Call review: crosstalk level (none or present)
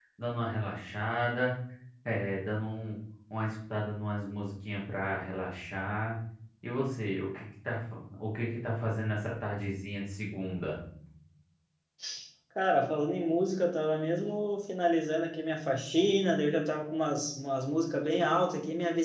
none